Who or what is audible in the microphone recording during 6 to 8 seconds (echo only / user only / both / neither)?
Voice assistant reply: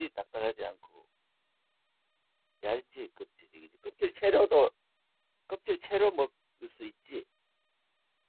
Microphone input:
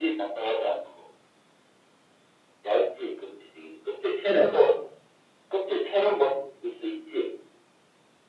echo only